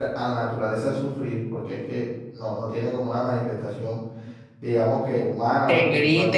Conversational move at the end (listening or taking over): taking over